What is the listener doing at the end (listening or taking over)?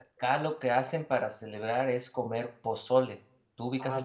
taking over